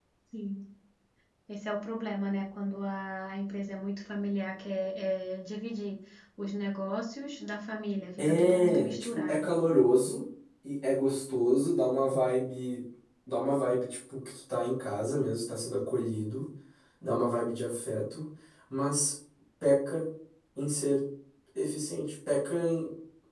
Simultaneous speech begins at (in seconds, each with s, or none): 8.2 s